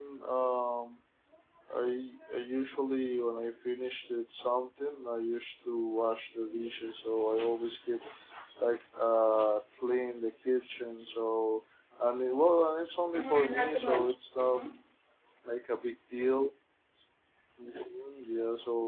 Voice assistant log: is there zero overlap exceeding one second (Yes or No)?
No